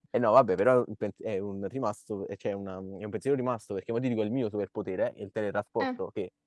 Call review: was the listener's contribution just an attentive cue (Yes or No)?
Yes